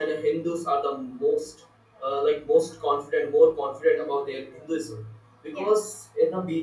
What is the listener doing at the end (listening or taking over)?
listening